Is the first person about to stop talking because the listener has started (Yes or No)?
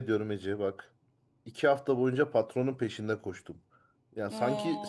No